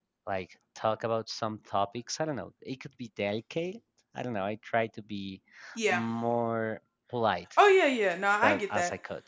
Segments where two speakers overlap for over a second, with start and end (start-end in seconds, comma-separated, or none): none